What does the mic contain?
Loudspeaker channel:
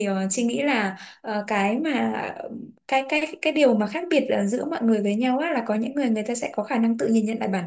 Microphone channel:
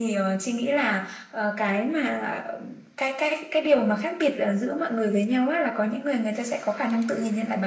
echo only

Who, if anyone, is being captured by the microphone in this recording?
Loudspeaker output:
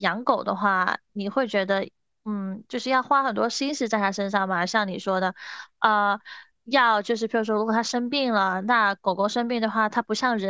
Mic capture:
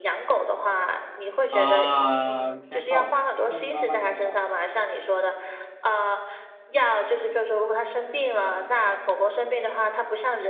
both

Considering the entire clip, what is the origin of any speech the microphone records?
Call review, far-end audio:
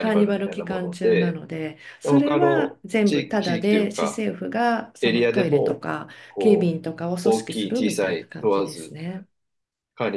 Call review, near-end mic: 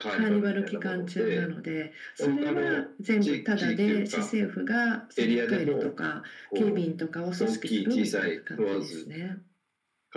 echo only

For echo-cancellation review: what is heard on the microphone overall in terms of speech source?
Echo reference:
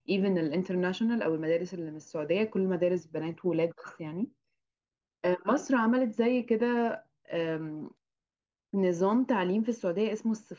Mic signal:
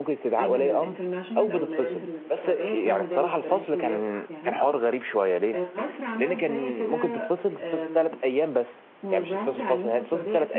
both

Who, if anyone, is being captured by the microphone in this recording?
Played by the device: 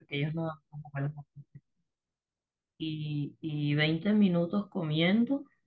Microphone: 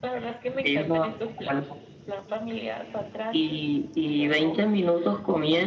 both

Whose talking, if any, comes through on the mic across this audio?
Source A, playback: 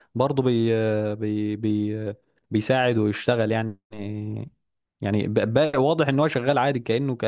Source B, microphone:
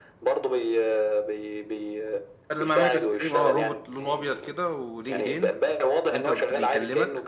both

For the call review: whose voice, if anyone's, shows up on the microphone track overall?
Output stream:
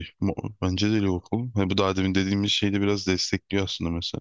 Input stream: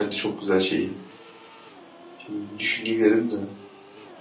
user only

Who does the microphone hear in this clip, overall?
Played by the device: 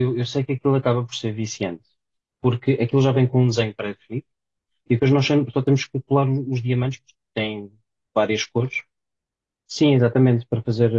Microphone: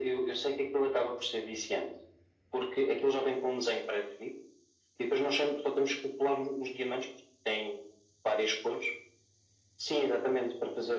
echo only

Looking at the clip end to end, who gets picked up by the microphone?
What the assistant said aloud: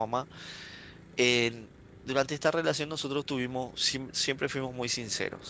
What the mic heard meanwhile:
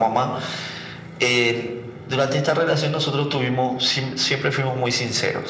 echo only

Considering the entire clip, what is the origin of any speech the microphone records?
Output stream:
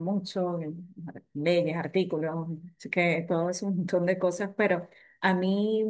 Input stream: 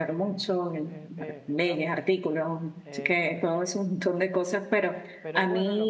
both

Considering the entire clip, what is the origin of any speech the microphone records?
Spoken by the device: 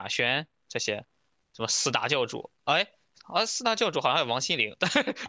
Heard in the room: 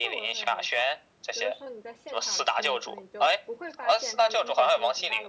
both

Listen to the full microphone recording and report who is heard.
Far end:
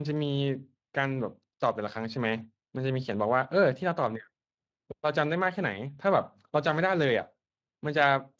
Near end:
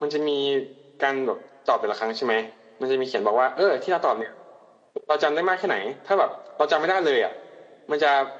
echo only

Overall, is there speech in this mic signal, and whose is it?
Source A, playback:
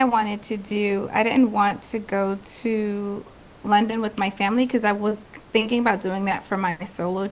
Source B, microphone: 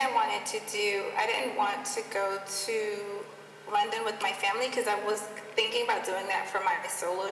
echo only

